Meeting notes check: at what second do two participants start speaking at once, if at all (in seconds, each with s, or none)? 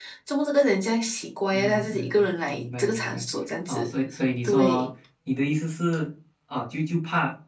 1.5 s